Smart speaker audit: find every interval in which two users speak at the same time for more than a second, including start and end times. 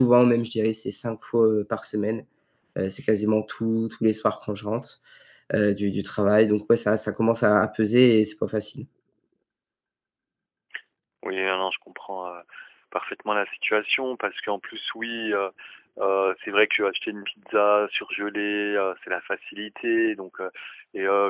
none

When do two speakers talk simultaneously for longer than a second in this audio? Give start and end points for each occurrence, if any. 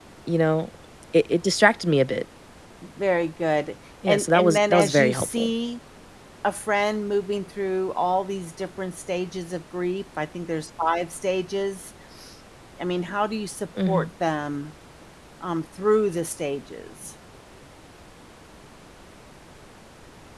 4.1-5.5

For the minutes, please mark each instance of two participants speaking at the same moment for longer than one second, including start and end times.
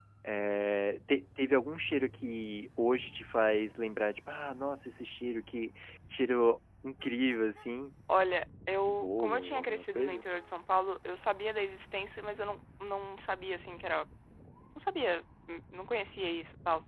8.9-10.2

